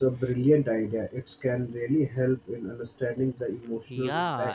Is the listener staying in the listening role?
No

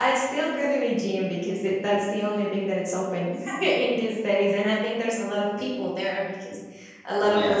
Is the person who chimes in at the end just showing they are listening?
Yes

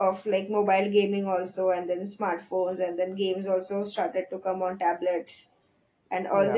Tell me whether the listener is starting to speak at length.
No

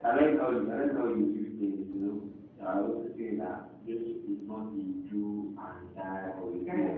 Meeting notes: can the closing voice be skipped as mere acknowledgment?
Yes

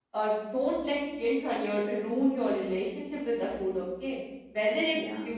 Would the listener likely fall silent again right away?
Yes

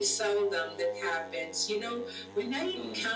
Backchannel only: Yes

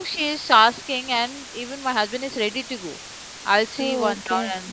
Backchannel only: Yes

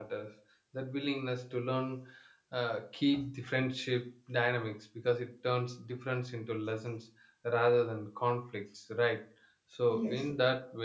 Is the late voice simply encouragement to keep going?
Yes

